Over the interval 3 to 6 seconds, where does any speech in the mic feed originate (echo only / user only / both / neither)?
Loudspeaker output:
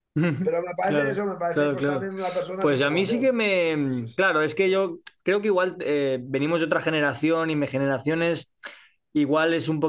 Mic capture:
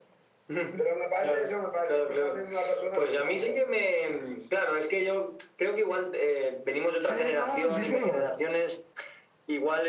echo only